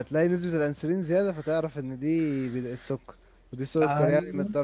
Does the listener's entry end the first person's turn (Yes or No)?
No